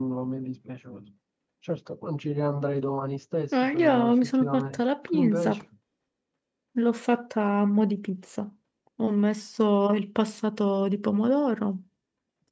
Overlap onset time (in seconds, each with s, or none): 3.5 s